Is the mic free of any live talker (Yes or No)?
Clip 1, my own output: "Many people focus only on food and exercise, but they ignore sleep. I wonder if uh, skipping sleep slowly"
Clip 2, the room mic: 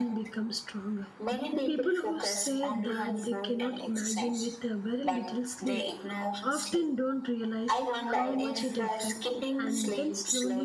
No